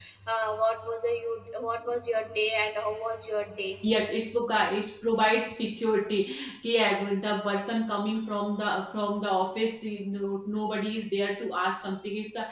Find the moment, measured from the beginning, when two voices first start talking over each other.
none

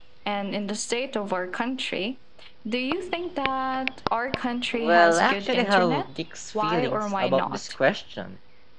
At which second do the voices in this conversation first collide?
4.7 s

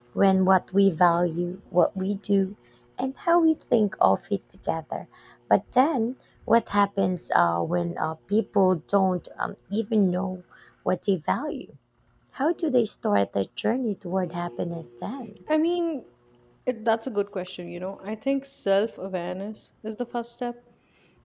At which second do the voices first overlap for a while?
none

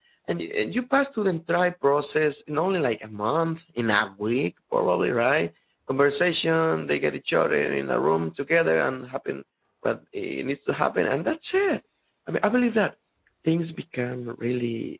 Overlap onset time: none

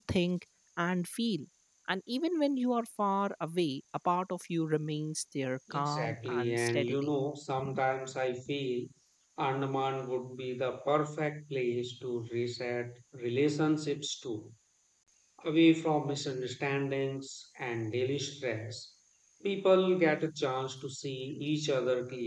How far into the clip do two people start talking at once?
5.7 s

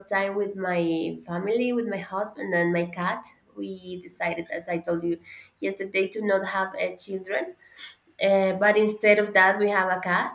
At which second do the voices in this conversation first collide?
none

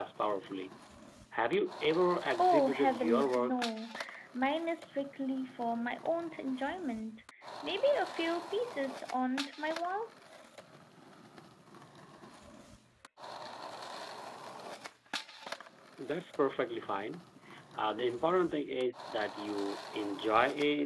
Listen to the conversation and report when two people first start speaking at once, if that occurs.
2.3 s

